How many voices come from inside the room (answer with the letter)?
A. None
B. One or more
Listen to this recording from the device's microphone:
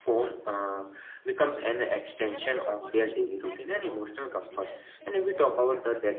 B